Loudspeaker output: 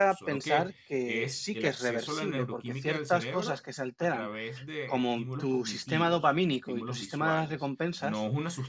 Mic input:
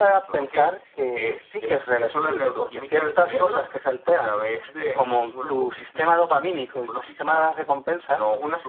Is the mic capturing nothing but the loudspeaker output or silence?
Yes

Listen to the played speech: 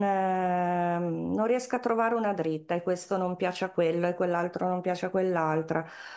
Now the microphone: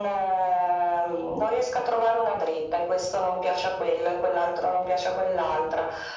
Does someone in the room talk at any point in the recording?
No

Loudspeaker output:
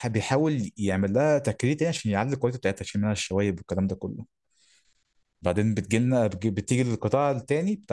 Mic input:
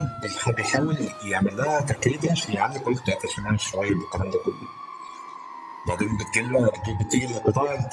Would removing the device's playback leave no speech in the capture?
Yes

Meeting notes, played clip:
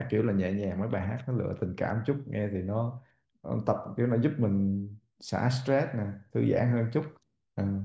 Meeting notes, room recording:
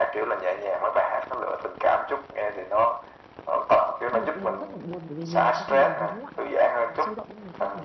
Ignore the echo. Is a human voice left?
Yes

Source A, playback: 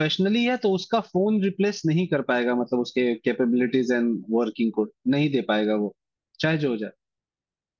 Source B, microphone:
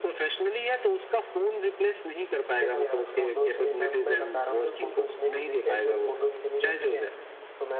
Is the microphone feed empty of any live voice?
No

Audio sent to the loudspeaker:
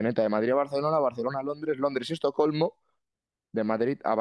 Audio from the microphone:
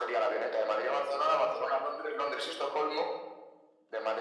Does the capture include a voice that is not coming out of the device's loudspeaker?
No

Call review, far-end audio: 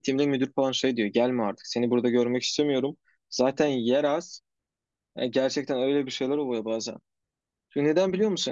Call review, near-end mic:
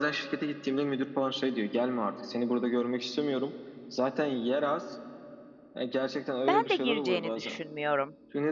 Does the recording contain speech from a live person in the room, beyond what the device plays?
Yes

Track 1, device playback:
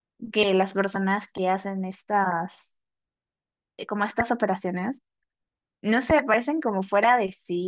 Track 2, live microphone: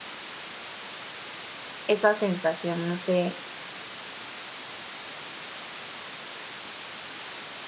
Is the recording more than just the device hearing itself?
Yes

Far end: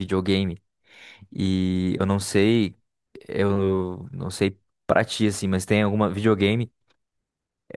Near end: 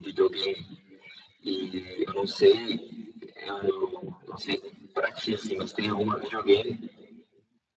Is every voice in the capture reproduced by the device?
Yes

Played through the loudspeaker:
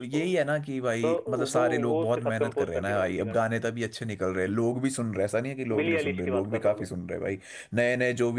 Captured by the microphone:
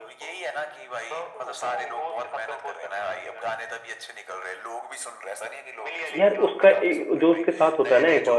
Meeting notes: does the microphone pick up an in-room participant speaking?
Yes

